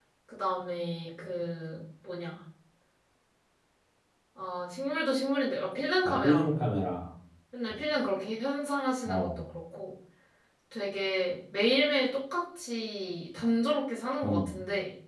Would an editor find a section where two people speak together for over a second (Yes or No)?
No